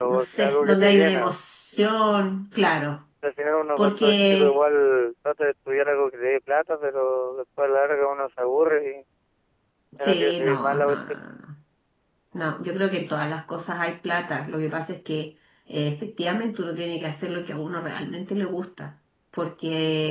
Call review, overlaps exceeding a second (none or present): present